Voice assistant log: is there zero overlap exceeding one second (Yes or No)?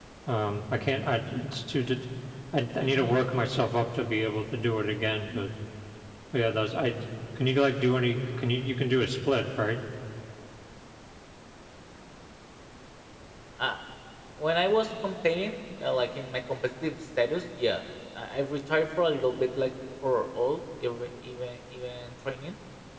Yes